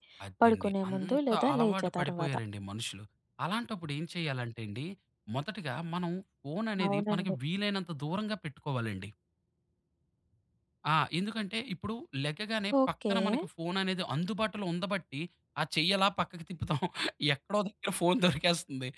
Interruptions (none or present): present